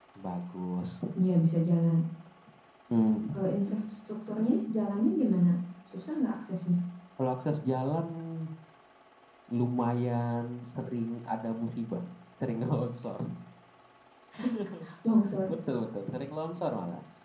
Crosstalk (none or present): none